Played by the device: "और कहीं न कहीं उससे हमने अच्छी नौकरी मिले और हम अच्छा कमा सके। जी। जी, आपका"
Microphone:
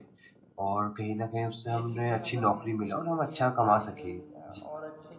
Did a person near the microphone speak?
Yes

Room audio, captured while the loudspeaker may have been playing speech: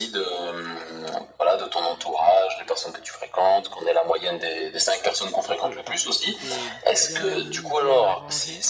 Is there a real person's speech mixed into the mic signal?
Yes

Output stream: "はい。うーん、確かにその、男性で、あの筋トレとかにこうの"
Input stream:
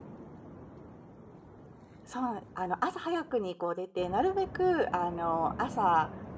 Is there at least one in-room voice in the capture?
Yes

